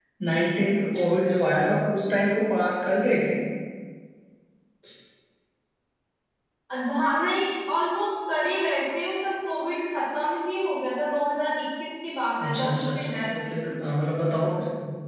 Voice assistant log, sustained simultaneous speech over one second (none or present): present